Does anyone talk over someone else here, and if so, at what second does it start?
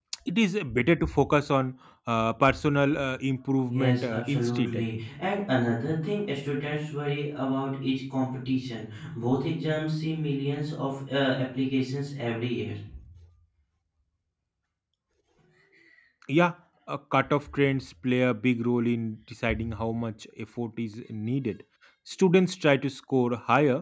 3.7 s

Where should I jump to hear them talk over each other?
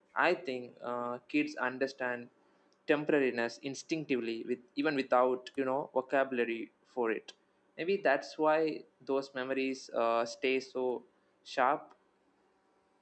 none

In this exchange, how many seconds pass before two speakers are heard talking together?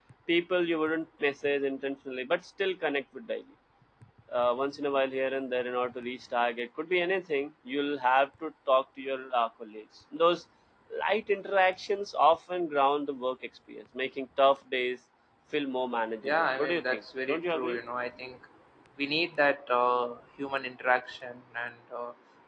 16.2 s

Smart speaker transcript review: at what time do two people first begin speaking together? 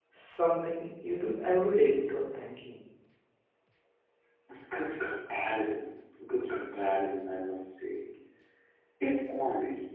none

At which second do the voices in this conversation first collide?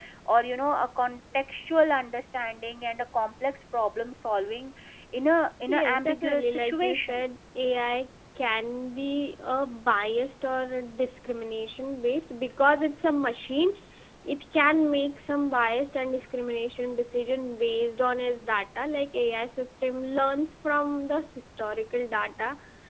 5.7 s

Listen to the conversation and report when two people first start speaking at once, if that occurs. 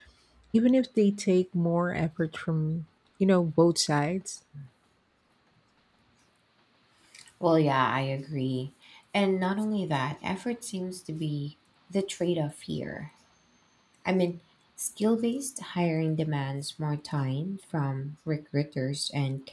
none

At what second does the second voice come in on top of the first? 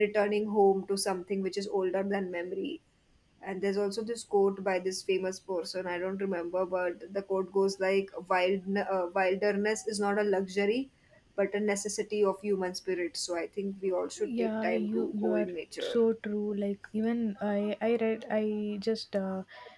14.2 s

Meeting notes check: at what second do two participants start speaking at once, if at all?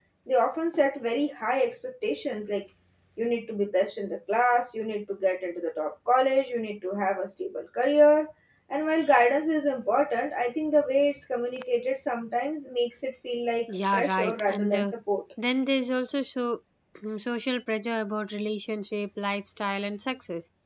13.7 s

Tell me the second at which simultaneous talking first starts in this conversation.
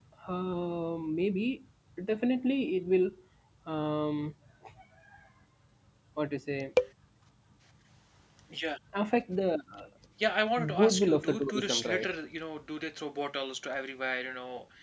10.8 s

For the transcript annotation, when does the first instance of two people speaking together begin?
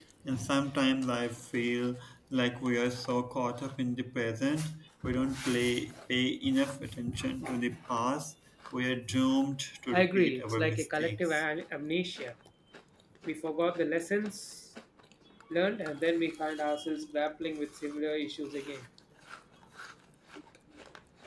9.9 s

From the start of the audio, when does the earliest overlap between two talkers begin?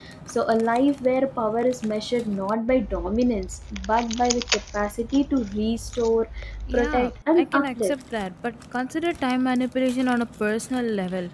6.7 s

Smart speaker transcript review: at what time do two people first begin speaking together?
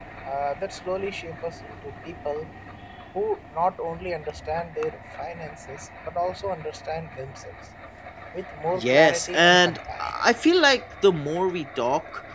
8.7 s

